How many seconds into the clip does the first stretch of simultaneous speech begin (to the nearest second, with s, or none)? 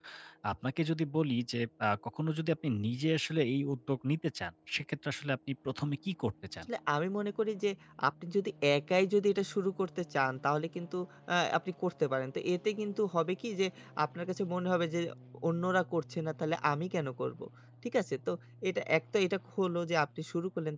none